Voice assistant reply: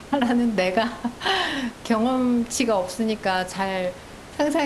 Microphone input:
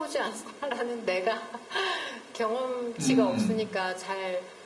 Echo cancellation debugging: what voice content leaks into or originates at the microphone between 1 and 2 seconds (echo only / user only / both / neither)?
echo only